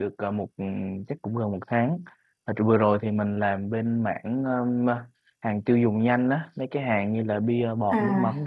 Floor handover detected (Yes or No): No